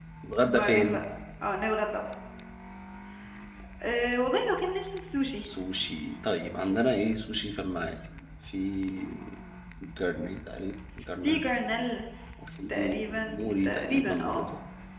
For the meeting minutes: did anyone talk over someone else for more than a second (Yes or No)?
Yes